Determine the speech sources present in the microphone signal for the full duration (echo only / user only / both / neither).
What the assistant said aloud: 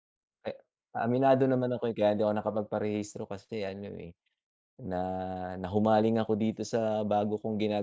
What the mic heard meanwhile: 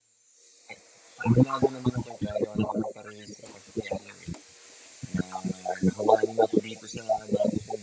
echo only